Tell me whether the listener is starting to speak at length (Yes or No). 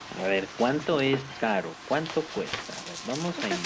No